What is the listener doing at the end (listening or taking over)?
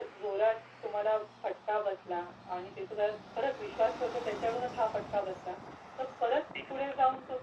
listening